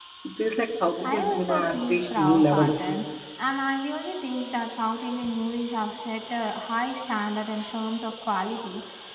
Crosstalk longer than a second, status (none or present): present